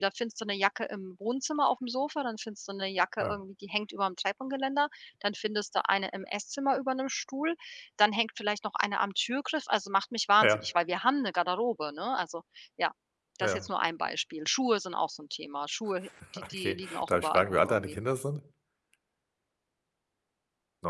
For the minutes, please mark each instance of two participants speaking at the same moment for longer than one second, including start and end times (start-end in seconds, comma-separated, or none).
16.5-18.0